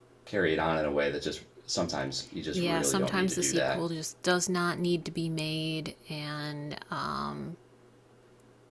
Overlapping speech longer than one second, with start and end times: 2.5-3.8

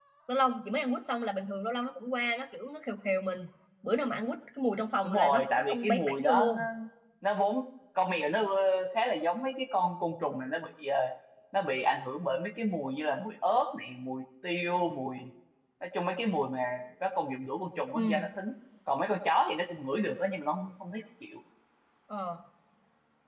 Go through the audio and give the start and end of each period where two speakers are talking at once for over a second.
5.0-6.6

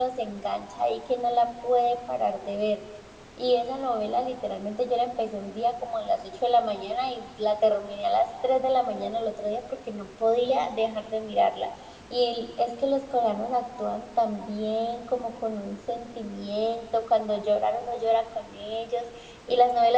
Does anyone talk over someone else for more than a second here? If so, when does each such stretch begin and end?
none

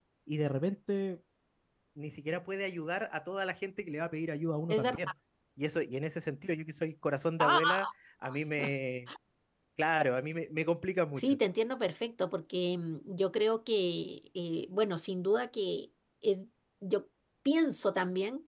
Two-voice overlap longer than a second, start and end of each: none

